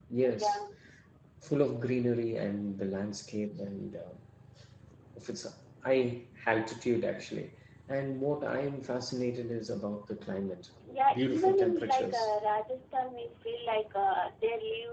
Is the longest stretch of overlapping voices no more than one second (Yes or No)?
No